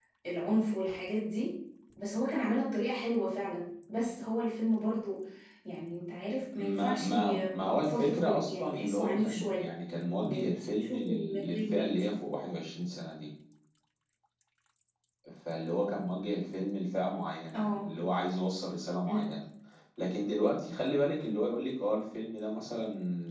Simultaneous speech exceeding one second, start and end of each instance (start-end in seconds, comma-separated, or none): 6.6-9.6, 10.3-12.2